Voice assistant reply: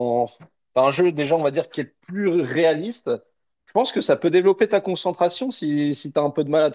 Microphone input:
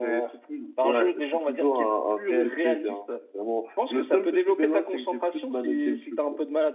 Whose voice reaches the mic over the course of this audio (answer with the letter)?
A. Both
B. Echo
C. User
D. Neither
A